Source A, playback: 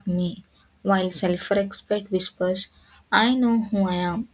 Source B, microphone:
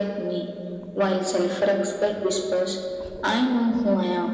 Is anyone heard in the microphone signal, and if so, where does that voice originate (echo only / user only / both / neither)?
echo only